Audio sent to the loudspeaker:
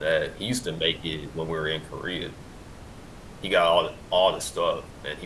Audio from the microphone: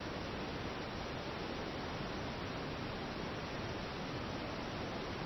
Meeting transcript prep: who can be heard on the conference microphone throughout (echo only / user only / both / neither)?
neither